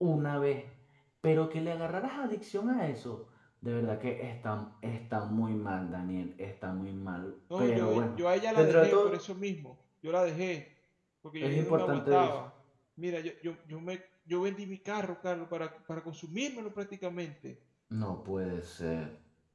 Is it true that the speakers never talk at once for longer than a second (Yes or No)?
No